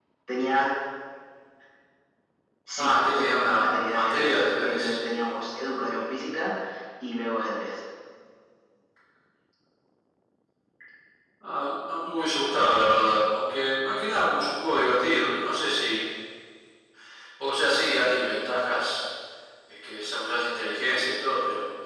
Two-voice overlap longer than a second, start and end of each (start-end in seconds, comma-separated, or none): 2.8-4.9